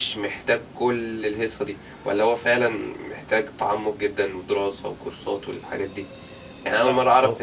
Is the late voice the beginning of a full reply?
No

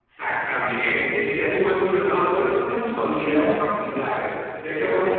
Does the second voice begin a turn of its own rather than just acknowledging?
No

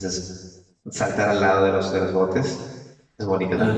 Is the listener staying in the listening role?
No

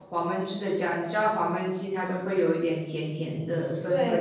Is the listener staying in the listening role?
No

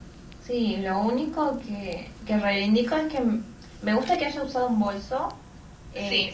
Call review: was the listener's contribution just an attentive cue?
Yes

